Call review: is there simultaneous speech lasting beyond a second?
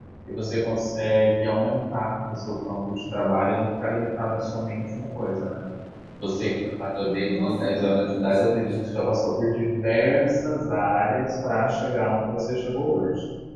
Yes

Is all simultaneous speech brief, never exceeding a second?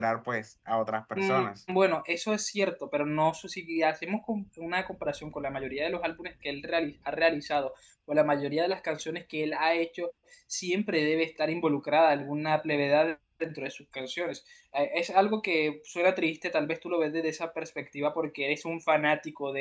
Yes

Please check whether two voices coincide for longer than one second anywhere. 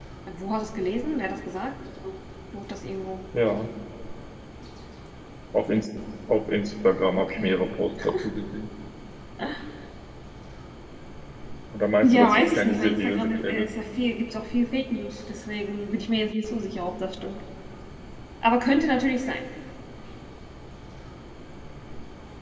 Yes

